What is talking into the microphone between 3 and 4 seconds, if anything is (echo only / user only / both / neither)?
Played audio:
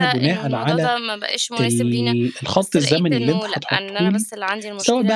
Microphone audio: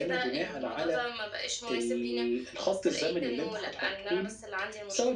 echo only